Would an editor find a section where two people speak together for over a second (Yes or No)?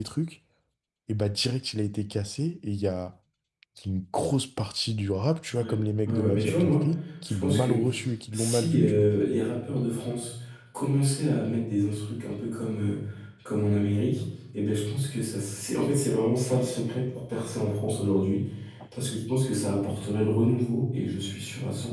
Yes